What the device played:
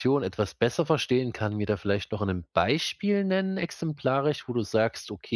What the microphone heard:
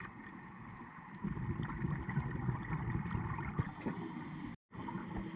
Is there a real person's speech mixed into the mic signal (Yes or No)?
No